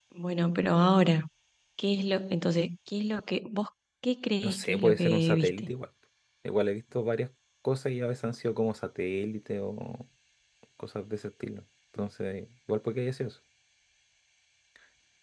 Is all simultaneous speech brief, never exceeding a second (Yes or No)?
No